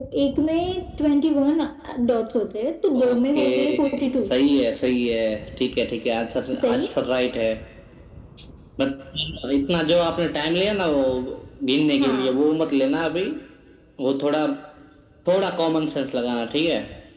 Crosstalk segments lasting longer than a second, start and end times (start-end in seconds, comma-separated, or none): 3.0-4.2